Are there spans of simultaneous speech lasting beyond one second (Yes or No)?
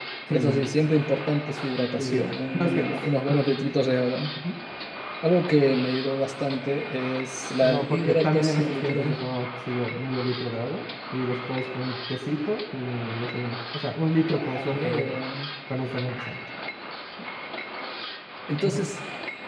Yes